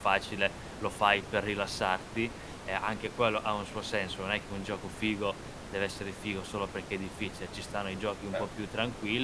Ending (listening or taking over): listening